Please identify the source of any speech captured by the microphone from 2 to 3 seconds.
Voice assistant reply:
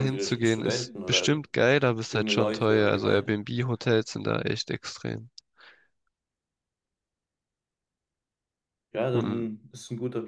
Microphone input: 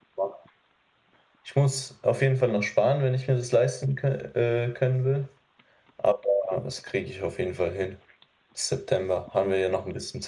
user only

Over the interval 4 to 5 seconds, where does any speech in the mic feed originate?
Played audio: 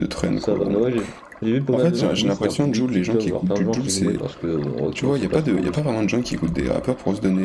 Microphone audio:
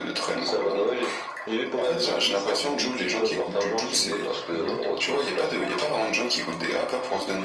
both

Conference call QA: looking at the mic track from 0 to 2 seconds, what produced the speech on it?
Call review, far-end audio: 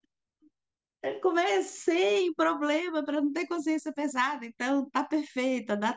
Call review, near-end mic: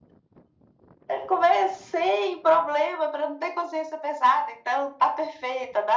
echo only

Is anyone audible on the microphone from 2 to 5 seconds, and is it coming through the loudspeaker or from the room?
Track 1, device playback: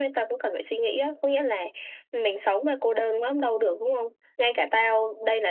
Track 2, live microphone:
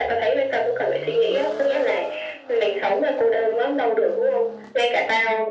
echo only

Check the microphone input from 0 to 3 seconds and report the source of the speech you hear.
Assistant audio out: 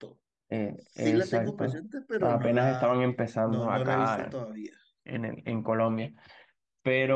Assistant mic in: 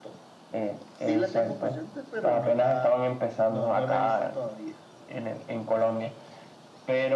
echo only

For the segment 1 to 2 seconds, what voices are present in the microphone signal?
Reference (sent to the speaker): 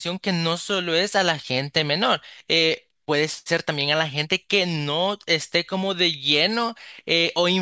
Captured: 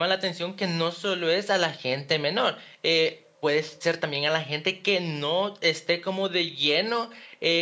echo only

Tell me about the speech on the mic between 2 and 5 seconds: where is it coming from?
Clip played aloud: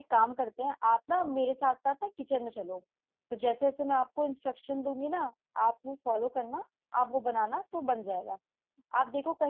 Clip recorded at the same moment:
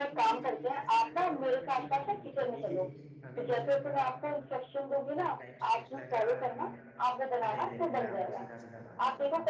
both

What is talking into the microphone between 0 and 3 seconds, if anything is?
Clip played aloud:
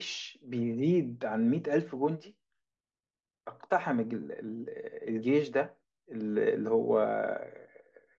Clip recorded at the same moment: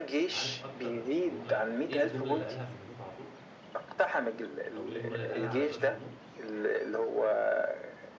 both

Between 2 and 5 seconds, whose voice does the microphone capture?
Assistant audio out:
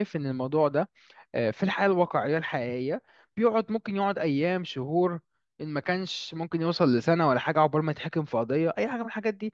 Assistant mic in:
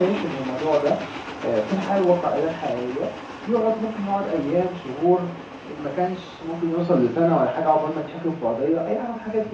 echo only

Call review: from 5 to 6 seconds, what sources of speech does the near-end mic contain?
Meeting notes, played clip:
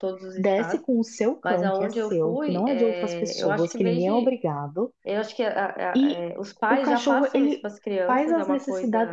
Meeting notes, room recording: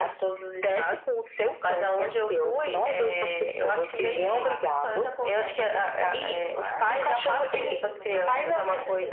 both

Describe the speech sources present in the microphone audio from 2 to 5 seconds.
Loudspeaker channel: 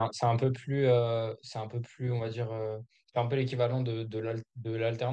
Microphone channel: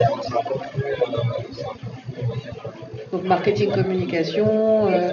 both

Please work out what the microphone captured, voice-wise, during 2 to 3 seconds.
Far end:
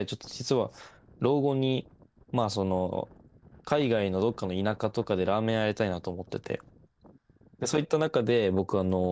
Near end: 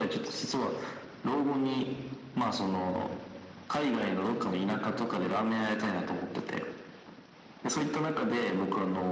echo only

